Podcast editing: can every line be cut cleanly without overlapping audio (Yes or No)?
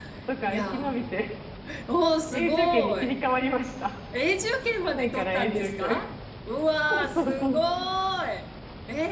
No